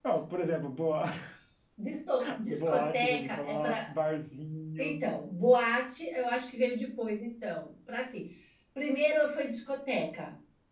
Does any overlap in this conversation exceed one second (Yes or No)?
Yes